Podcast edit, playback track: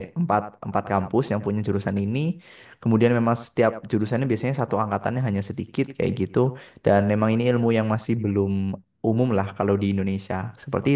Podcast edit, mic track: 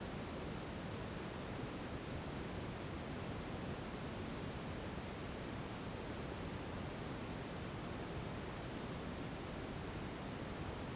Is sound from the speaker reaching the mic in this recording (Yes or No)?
No